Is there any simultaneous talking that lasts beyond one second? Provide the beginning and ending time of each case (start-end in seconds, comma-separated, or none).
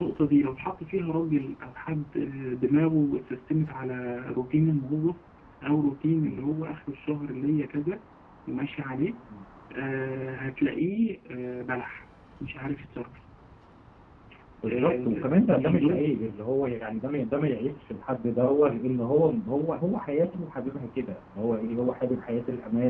14.7-16.0